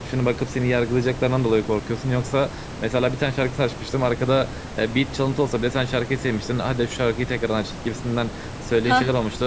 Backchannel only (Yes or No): Yes